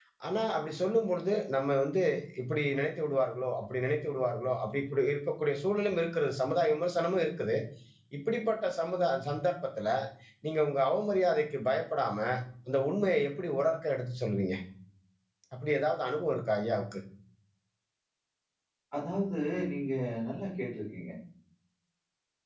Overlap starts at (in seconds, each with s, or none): none